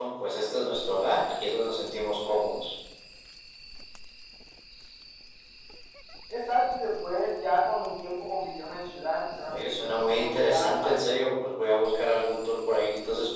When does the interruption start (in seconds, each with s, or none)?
9.5 s